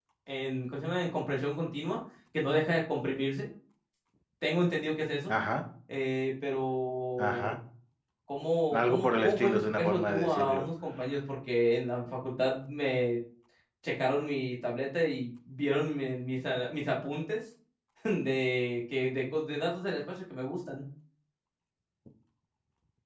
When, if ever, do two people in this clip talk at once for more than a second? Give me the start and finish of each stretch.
8.7-10.7

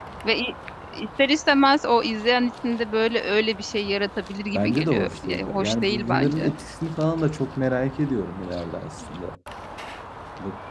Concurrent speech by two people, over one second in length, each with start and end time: 4.5-6.5

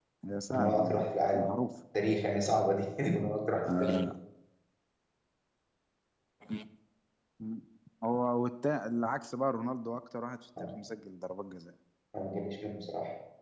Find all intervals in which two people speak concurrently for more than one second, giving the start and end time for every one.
none

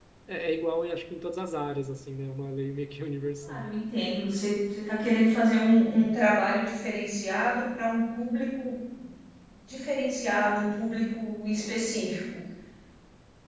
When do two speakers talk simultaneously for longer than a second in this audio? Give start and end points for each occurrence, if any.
none

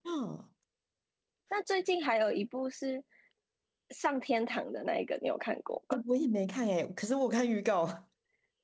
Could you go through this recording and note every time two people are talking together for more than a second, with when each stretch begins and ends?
none

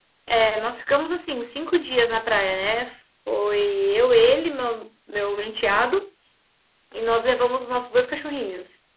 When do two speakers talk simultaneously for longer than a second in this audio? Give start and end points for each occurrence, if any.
none

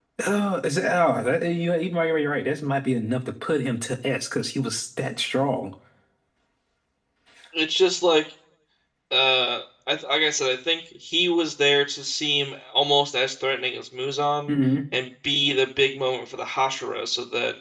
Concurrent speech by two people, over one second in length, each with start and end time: none

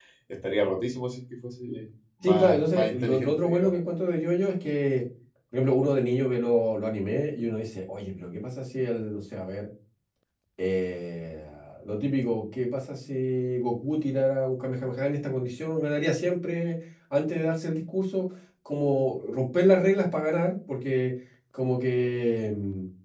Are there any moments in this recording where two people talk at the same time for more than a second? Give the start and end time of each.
2.2-3.8

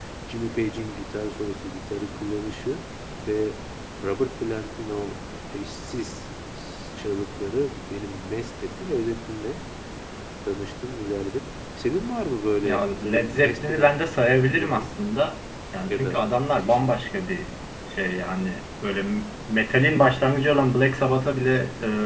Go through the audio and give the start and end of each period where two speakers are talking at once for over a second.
12.6-13.9

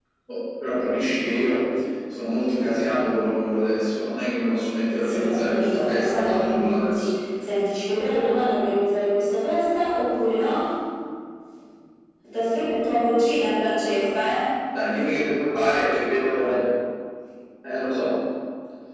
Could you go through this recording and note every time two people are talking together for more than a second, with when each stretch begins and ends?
5.0-7.2

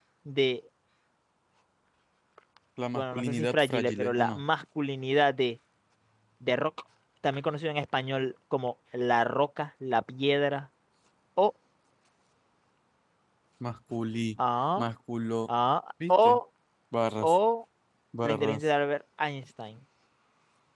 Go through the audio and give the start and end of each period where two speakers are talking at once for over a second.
2.9-4.4

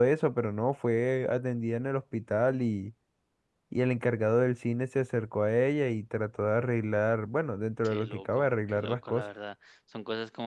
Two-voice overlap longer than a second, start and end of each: 7.8-9.2

